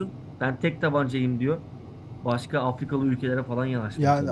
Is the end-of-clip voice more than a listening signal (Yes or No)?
Yes